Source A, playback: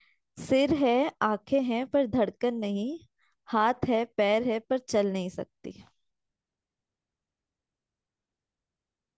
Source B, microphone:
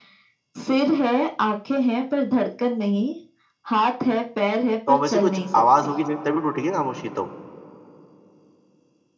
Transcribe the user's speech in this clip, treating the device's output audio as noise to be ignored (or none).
तो वैसे कुछ आवाज होगी जब- तभी टूटेगी ना खामोशी तो